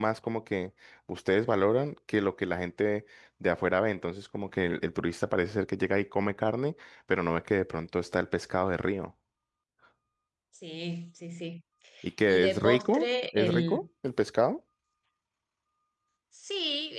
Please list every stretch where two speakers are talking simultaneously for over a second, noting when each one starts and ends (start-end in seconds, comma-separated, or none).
12.2-13.8